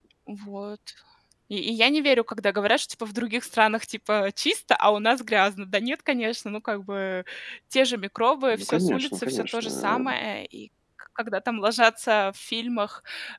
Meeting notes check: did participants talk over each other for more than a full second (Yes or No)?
Yes